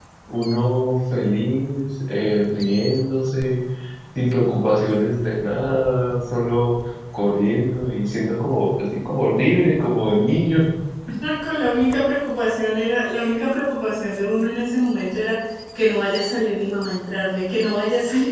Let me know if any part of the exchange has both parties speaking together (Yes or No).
No